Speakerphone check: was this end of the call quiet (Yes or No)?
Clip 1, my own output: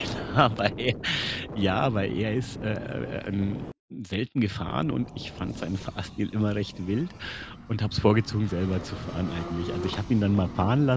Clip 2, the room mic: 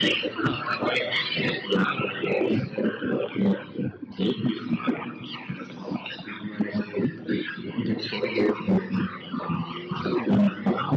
Yes